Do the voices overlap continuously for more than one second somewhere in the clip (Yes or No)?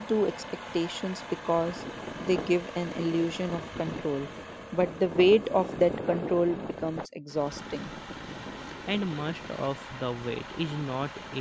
No